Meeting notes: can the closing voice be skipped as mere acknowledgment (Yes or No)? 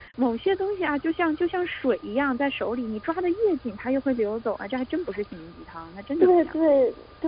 No